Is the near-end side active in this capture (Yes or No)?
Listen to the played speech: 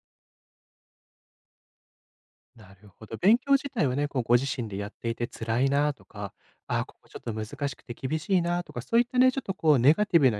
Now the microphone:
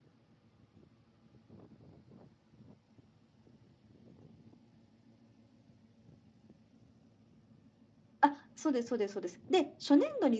Yes